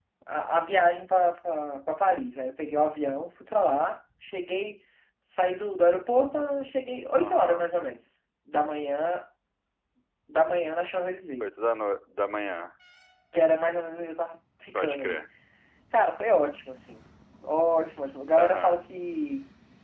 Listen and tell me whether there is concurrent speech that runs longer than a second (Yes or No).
No